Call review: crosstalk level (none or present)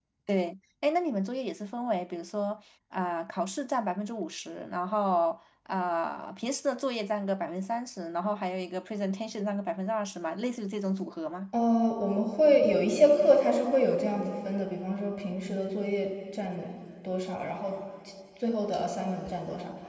none